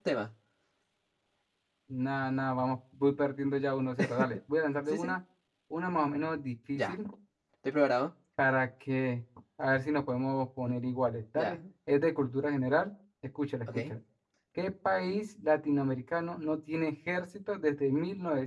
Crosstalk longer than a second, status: none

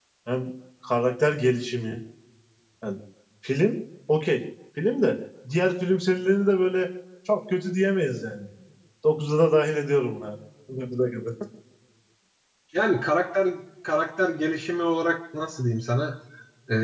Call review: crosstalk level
none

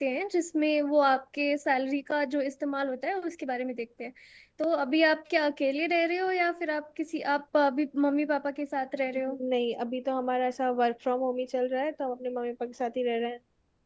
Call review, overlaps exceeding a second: none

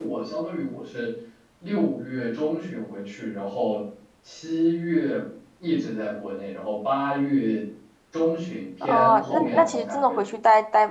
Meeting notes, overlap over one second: present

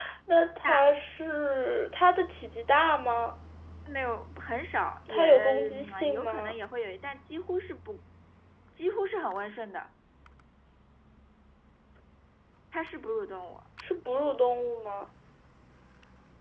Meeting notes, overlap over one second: present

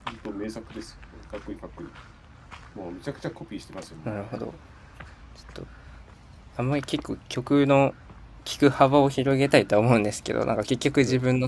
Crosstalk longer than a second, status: none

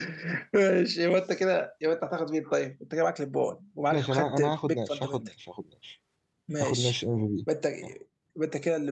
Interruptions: present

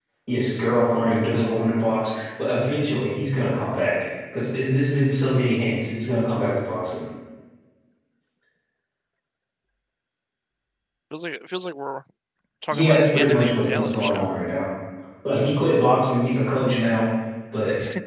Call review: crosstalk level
present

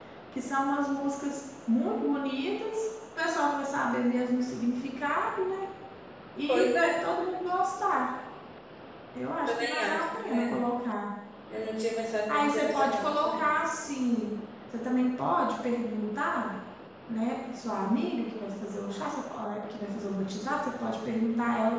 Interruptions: present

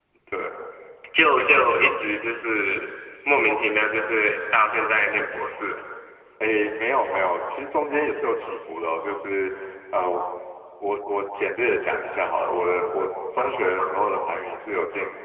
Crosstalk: none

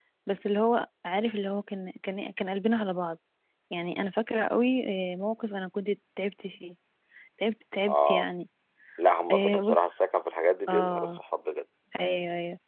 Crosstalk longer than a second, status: none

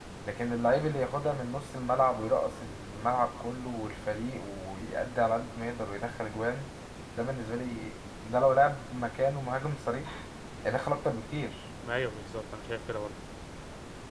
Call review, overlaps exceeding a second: none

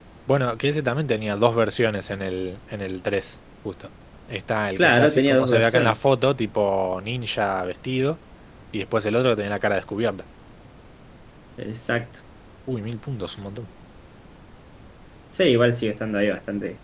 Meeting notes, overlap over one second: present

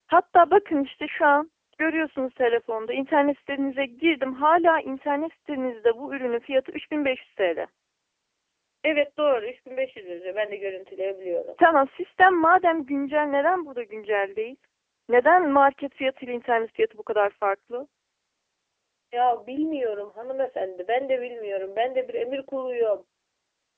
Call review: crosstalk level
none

